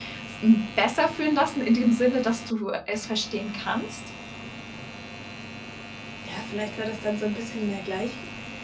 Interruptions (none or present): none